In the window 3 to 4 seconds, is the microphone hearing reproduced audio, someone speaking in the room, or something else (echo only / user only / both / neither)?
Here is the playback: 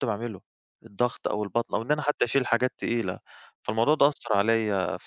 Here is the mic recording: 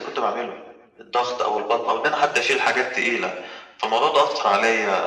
echo only